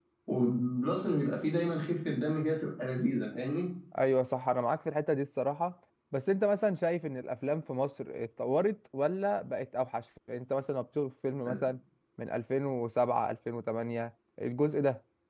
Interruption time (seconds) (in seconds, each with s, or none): none